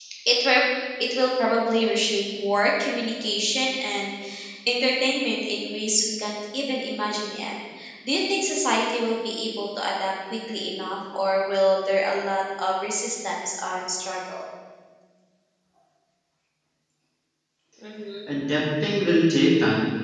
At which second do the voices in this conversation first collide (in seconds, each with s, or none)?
none